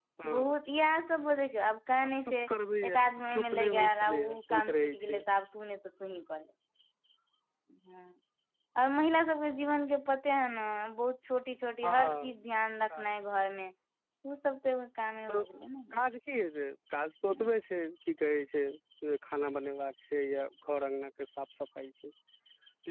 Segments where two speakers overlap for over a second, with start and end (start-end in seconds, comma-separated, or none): 2.9-5.2